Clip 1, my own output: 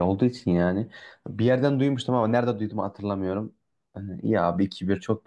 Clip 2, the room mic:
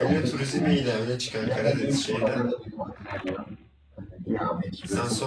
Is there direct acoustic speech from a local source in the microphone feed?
Yes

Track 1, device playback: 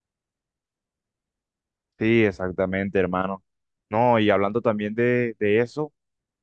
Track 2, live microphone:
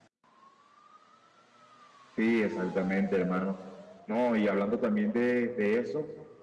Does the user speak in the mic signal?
No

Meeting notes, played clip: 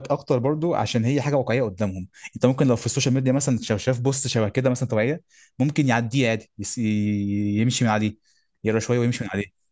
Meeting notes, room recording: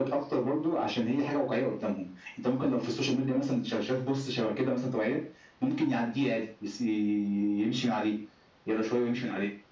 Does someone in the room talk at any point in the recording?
No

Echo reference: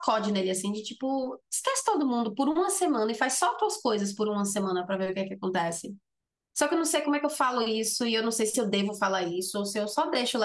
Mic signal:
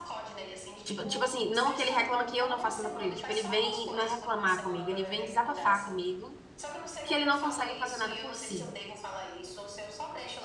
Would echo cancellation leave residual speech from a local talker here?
Yes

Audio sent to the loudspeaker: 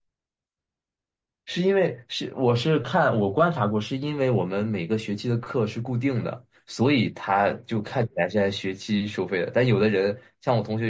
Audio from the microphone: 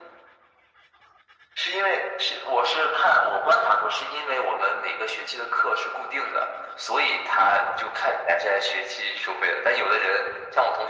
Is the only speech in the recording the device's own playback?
Yes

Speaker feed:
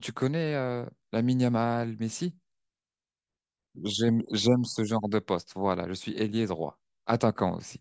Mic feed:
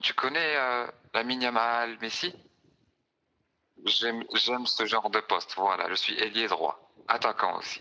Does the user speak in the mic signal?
No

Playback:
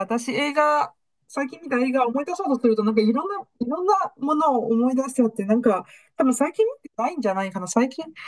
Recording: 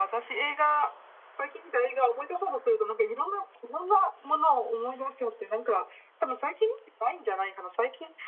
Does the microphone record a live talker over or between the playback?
No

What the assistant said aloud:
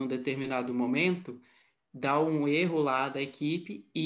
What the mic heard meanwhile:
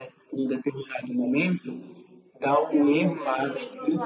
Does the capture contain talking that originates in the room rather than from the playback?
Yes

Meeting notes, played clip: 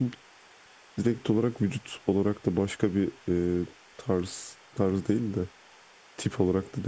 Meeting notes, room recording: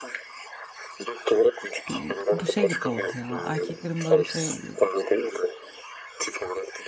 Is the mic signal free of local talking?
No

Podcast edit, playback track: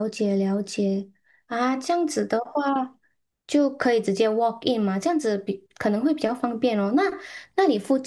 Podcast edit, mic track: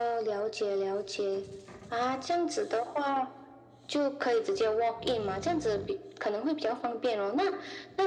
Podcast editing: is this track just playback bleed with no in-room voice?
Yes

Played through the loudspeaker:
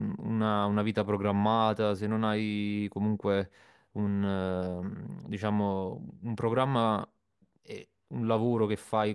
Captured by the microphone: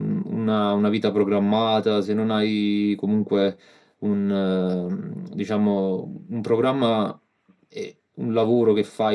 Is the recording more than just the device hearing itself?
No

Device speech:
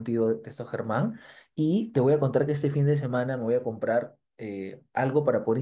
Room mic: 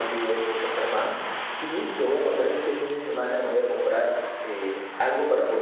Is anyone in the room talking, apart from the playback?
No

